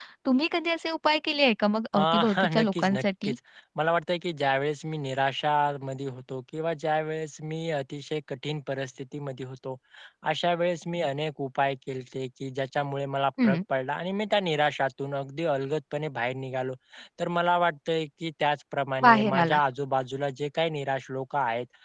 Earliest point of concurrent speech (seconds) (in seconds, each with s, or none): 1.9 s